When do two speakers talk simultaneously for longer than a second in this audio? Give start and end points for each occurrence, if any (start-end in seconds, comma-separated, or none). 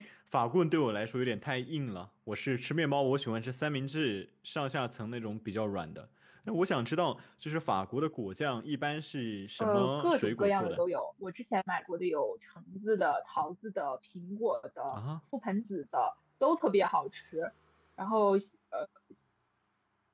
9.6-10.8